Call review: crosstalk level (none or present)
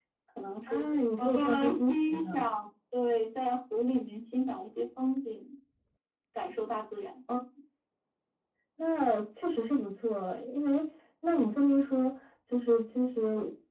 present